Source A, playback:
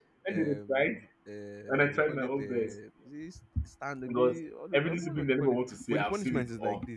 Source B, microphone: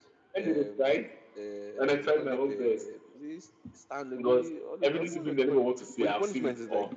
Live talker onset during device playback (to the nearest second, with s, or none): none